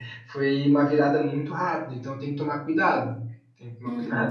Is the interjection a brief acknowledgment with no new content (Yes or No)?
No